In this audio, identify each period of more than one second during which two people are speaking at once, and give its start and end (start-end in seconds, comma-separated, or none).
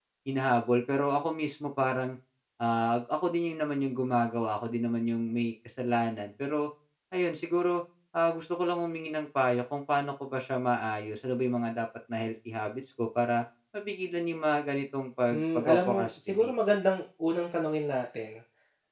15.3-16.5